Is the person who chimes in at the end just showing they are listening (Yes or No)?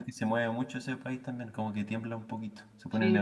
No